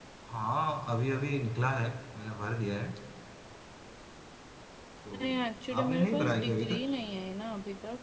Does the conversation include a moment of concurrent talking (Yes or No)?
Yes